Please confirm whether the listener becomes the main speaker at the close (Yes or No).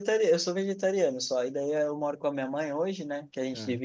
No